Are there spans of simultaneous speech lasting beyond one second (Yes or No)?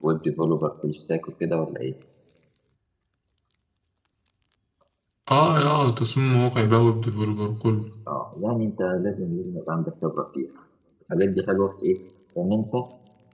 No